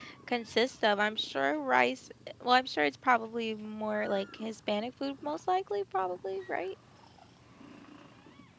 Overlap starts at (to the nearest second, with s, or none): none